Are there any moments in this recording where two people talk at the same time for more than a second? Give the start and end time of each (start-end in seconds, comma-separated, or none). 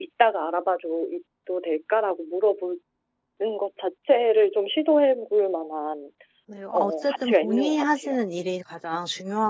6.7-8.2